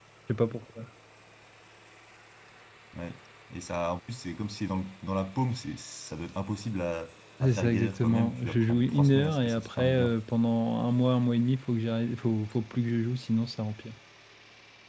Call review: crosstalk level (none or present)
present